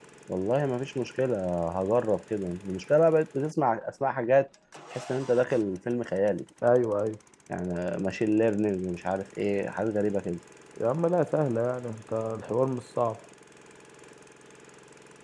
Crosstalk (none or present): none